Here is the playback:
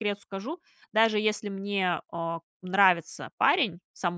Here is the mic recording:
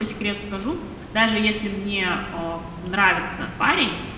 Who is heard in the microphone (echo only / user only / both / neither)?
echo only